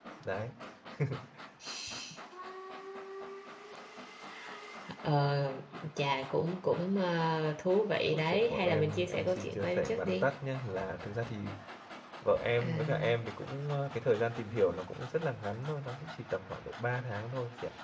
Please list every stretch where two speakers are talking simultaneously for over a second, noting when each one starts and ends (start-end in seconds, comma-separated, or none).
8.1-10.2